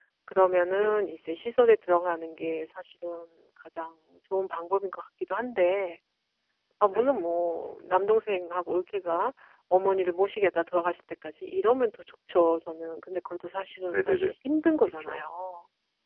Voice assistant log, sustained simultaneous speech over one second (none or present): none